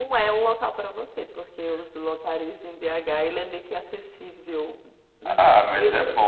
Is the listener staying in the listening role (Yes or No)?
No